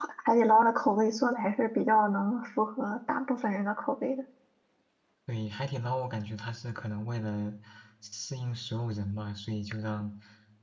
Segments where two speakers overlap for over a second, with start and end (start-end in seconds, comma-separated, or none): none